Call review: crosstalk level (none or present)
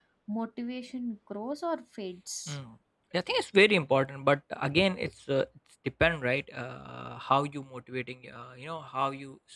none